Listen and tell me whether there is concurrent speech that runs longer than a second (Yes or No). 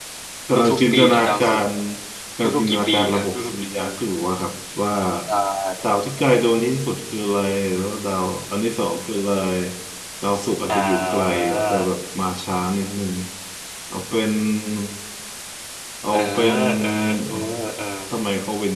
Yes